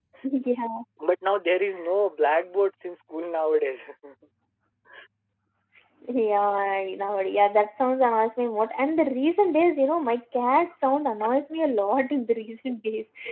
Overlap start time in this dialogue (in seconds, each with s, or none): none